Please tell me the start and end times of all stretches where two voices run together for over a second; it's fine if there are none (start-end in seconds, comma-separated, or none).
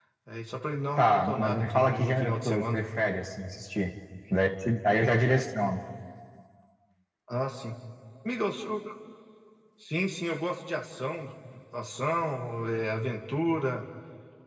1.0-2.8